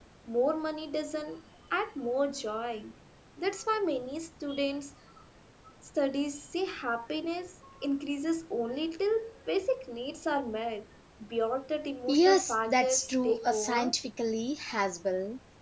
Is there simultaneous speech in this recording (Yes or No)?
Yes